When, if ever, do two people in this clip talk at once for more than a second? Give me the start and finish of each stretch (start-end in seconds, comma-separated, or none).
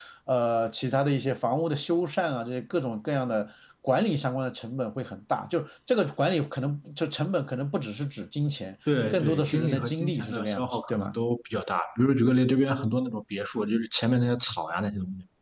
9.1-11.1